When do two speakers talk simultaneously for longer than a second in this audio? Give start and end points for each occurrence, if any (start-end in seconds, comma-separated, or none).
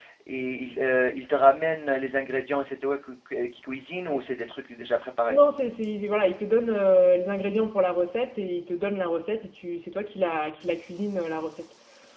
none